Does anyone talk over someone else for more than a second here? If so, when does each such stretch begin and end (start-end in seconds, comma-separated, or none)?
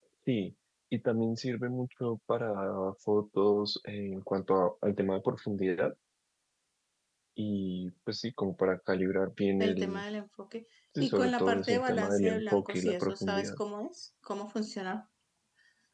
11.0-13.5